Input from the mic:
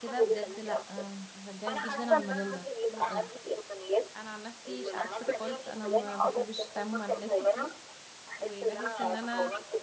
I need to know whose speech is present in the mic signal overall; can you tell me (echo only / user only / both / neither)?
both